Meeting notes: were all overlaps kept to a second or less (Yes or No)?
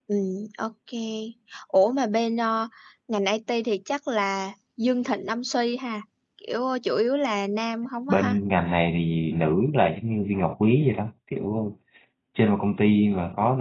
Yes